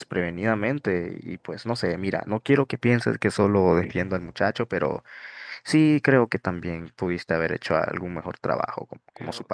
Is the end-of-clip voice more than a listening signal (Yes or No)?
Yes